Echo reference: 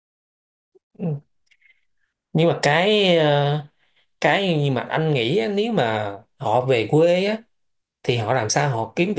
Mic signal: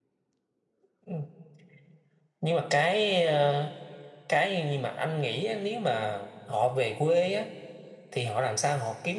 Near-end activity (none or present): none